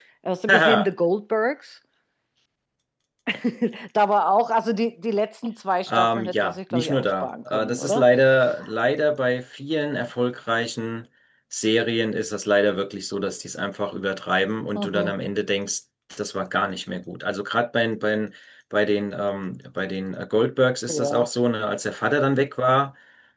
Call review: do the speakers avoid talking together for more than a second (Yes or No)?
No